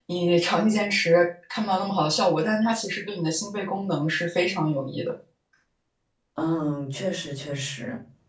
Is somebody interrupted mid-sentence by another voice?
No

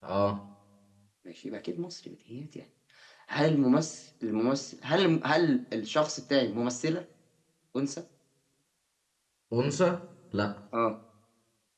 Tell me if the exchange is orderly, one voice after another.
Yes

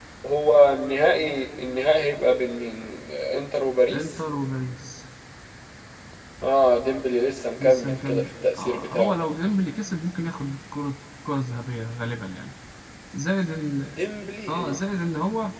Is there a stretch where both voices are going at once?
Yes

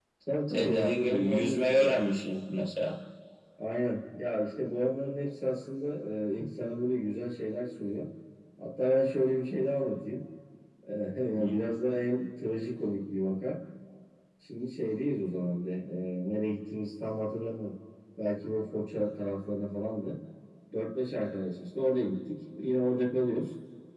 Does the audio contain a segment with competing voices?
Yes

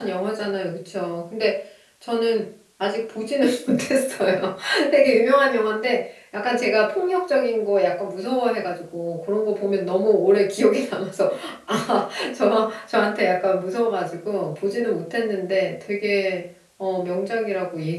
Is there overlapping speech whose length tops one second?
No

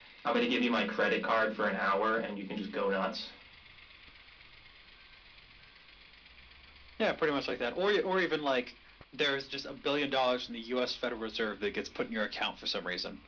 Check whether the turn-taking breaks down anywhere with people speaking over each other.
No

